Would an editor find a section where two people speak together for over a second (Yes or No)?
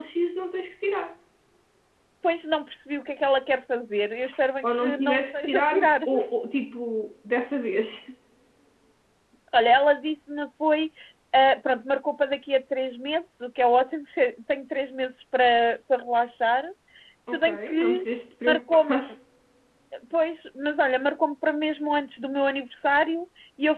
Yes